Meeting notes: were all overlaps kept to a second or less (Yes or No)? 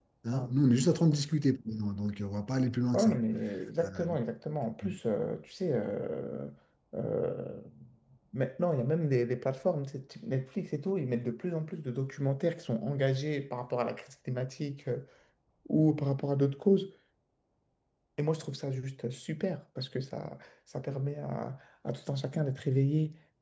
Yes